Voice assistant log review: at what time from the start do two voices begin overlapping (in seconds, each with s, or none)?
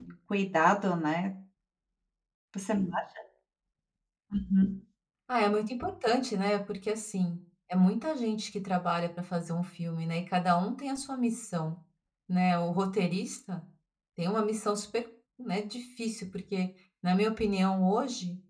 none